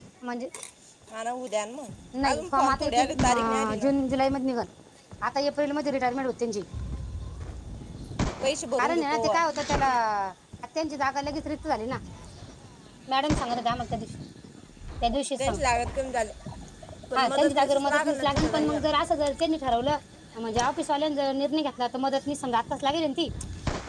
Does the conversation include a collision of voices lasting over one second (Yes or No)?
Yes